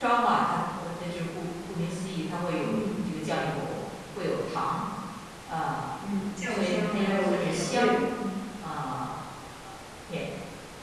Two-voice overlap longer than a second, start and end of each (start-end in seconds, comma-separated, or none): 6.5-8.0